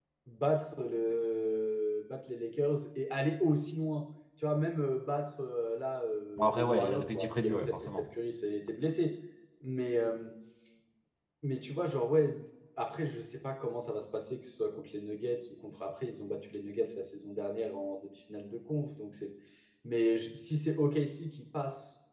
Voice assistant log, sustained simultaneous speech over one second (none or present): present